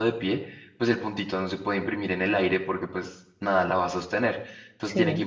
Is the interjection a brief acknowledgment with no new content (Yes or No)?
Yes